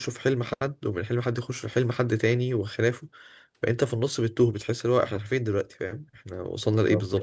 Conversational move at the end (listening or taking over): taking over